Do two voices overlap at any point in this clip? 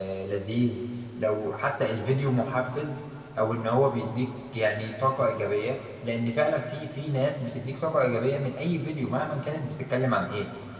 No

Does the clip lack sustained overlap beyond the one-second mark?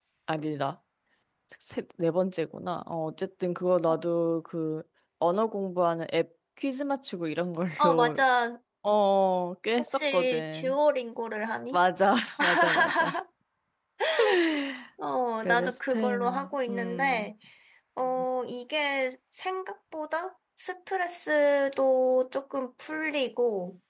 No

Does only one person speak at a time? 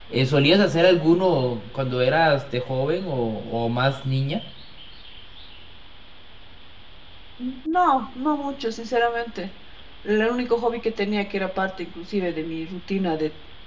Yes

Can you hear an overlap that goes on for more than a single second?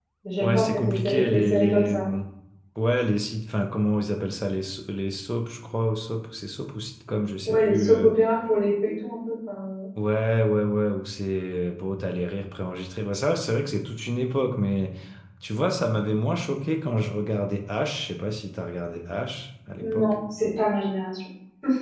Yes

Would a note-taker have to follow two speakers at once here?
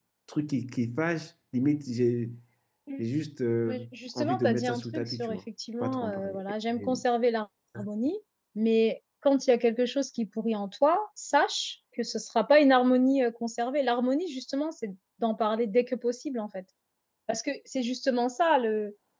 Yes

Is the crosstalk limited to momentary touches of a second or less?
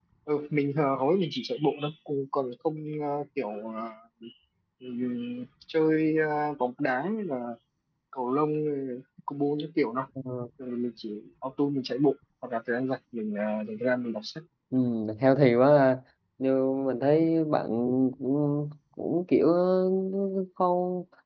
Yes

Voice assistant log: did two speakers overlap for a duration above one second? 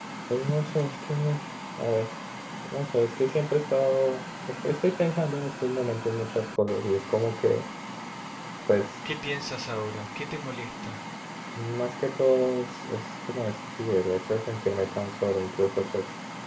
No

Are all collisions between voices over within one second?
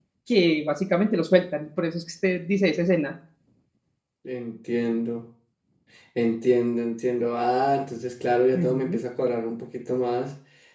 Yes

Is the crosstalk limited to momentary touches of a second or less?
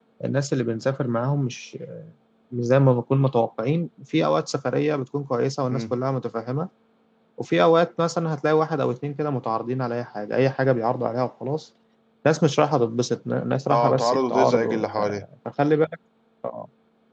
No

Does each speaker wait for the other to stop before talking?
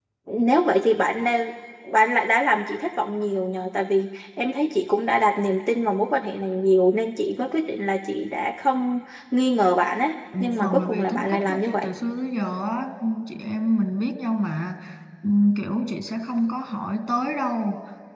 No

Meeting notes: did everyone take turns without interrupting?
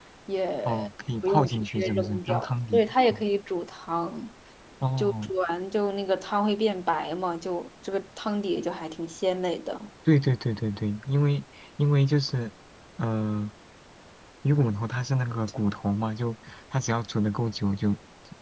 No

